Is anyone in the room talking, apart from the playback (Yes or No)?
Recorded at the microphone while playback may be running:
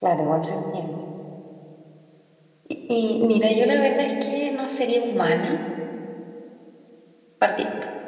Yes